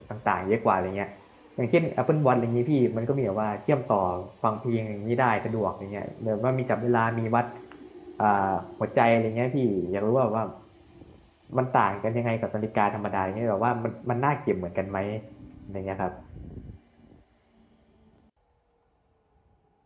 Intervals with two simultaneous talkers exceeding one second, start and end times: none

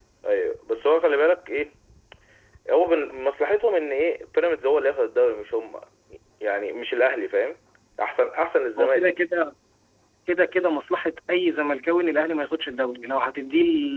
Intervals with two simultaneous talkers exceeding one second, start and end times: none

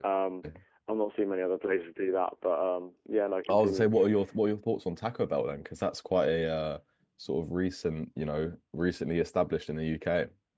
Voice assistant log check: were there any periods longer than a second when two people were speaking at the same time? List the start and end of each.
none

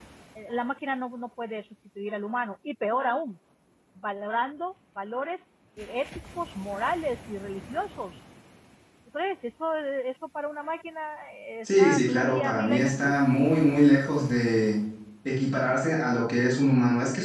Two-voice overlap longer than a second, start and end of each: 11.6-13.1

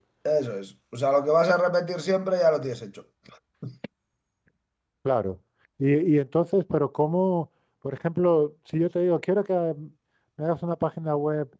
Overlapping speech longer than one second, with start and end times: none

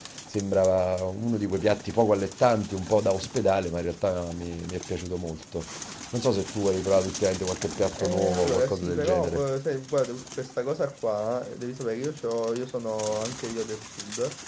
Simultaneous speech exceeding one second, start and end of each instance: 8.0-9.4

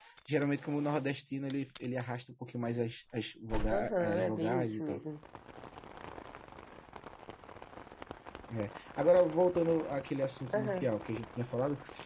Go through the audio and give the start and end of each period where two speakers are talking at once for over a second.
3.7-5.0

